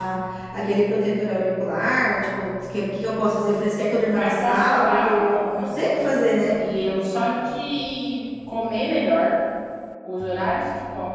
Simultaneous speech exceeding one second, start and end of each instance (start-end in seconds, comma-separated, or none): 4.2-6.1